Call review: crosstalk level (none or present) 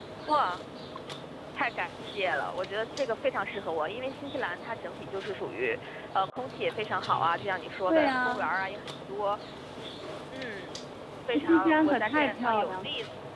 present